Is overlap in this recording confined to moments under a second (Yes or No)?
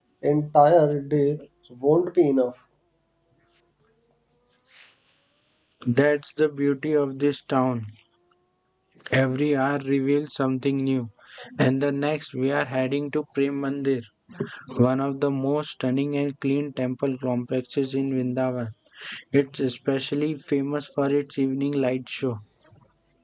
Yes